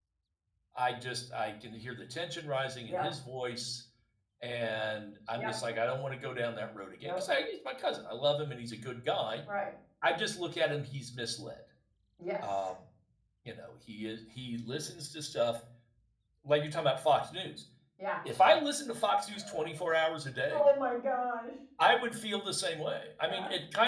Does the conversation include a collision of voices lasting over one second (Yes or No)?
No